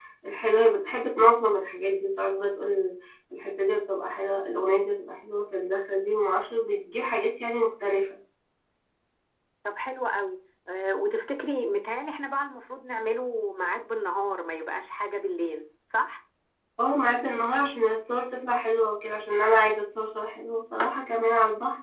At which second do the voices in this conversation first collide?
none

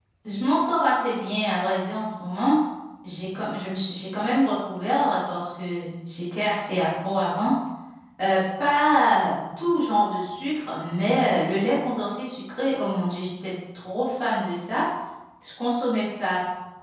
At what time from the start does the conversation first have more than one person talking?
none

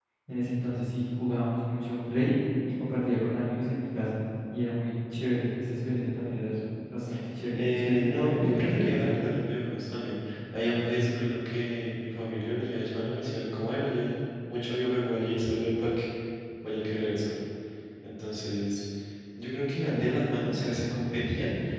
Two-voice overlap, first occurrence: 7.5 s

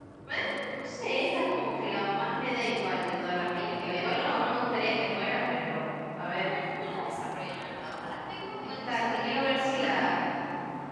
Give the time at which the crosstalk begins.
2.9 s

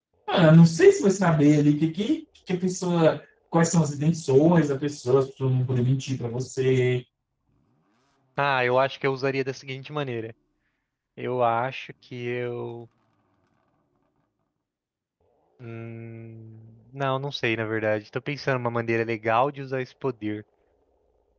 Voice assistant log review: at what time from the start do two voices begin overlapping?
none

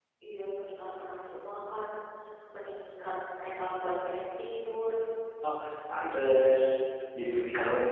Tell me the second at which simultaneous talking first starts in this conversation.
none

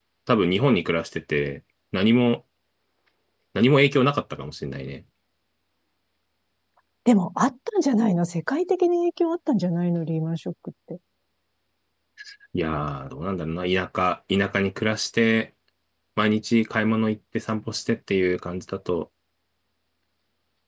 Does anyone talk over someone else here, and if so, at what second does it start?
none

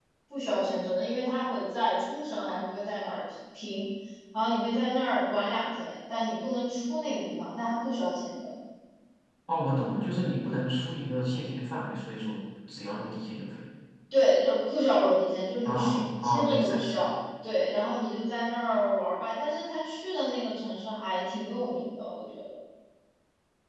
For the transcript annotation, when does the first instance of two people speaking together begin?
15.6 s

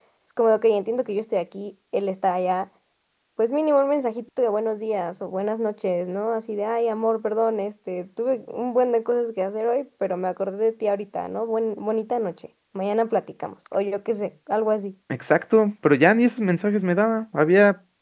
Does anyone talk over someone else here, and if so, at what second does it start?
none

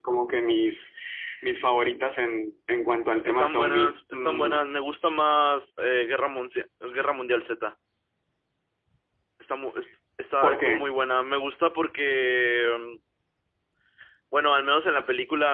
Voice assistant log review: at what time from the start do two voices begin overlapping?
3.2 s

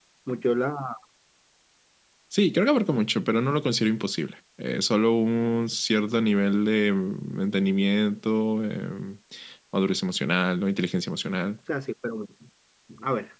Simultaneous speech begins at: none

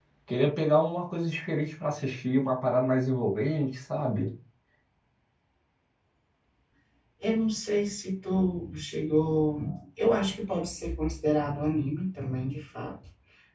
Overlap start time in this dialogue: none

